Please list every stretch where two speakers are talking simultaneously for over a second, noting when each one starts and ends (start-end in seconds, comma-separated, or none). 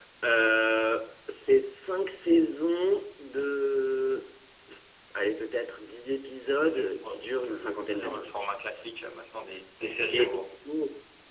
6.7-8.5